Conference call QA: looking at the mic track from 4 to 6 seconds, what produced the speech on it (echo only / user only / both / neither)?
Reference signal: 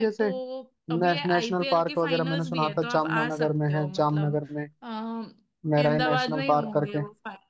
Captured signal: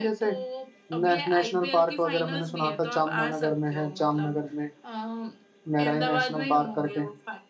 echo only